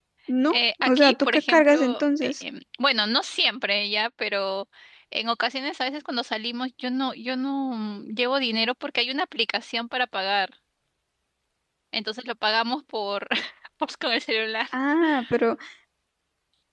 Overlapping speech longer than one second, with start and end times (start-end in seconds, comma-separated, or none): 0.5-2.4